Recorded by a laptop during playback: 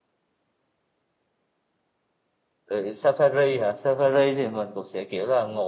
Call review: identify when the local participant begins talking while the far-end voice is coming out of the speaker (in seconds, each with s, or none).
none